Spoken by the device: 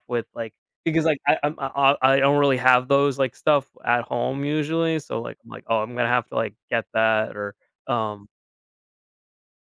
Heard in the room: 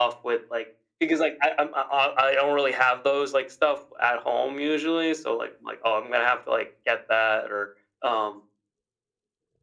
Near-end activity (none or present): none